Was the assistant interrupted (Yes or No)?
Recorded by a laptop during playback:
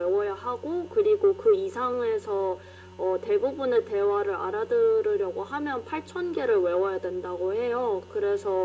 No